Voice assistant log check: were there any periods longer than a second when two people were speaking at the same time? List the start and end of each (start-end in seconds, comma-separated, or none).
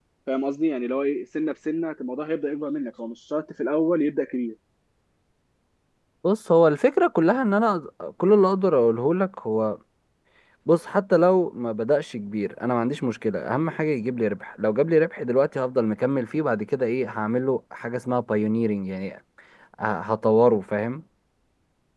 none